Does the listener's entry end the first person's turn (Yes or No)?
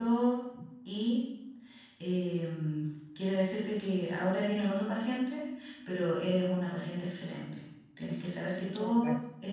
No